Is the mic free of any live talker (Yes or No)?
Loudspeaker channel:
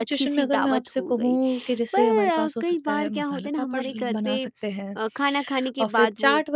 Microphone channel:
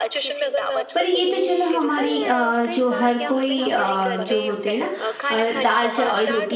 No